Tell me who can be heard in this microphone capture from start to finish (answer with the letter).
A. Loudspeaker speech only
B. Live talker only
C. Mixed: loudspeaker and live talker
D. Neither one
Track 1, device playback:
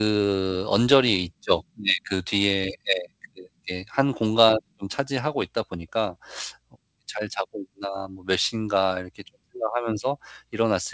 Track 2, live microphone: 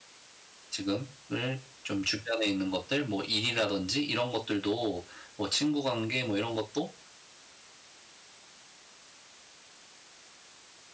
B